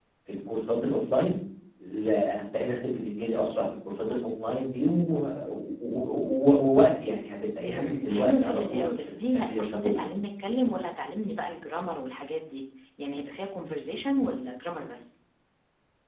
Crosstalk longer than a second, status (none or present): present